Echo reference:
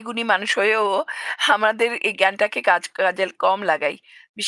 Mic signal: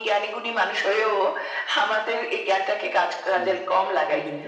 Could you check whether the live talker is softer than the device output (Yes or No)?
Yes